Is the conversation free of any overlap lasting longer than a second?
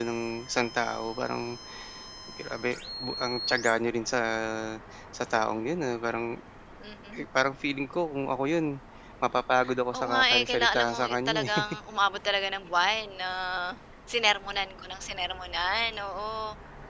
No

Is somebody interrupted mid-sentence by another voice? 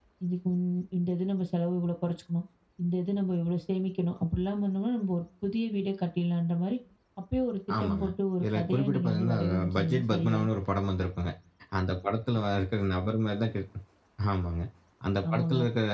Yes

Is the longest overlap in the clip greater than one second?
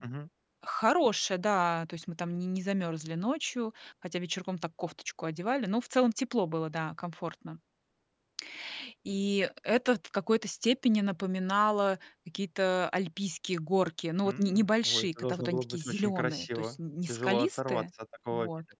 Yes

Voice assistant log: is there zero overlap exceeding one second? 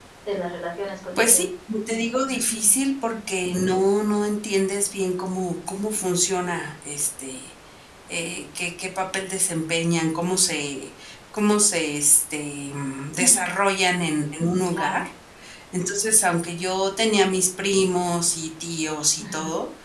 Yes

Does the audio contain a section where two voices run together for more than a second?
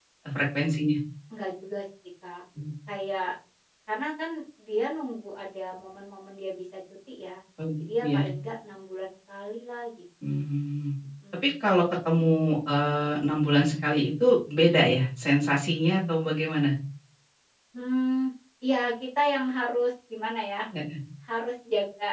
No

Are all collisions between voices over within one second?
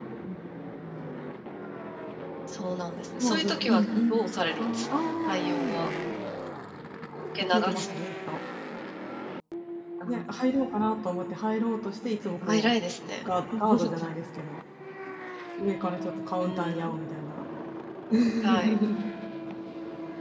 No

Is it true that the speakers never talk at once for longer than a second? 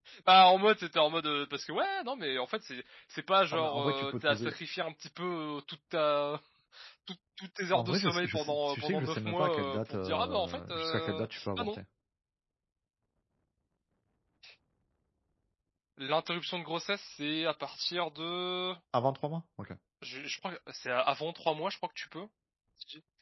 No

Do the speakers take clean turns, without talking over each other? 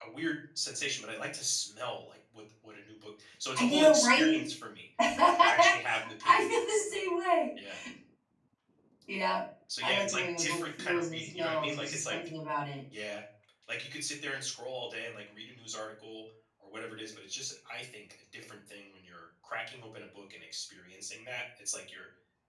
No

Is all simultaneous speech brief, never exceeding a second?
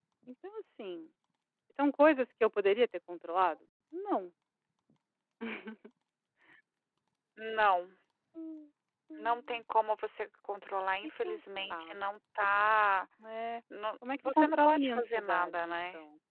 No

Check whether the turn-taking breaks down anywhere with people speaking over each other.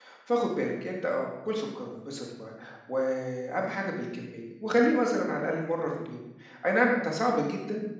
No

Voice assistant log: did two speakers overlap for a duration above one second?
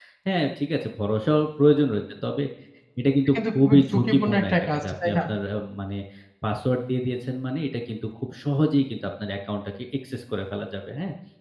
Yes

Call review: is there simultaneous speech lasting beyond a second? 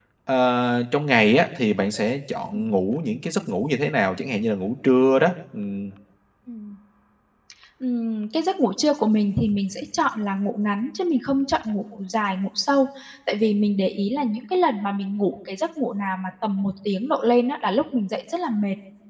No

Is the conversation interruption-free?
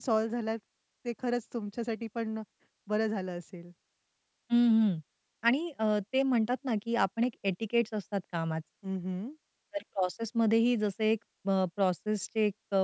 Yes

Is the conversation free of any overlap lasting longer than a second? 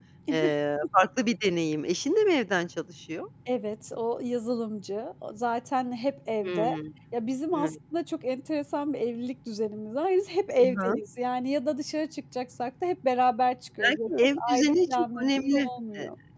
No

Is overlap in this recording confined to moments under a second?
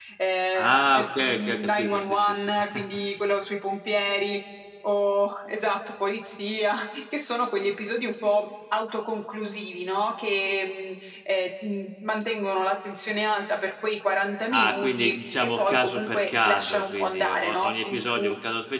No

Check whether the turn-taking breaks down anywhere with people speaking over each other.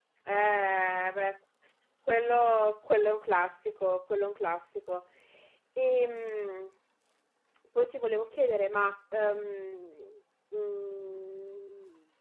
No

